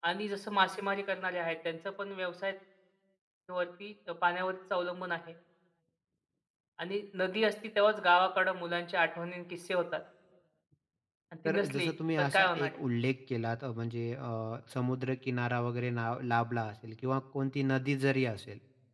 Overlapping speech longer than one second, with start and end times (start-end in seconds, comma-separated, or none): 11.5-12.8